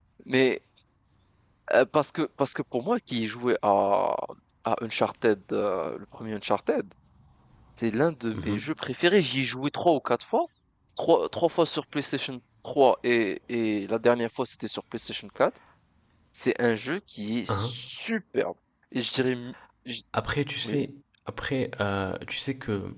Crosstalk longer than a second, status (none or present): none